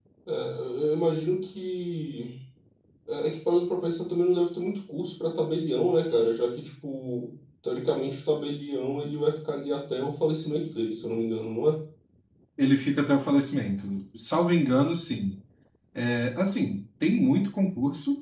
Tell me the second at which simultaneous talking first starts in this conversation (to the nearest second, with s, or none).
none